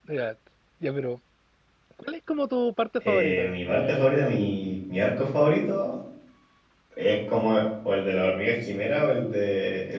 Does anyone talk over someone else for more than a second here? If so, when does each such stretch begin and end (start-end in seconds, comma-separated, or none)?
3.0-4.5